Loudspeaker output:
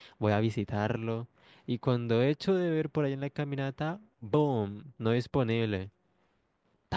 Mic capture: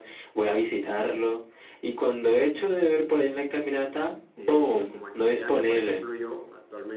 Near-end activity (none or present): present